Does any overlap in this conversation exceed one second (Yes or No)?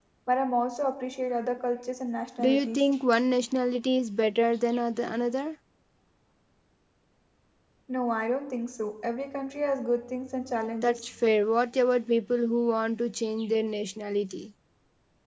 No